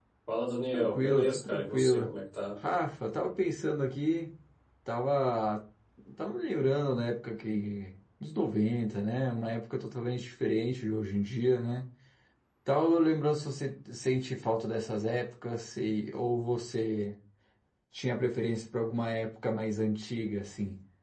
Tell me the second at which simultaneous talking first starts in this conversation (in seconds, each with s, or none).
0.7 s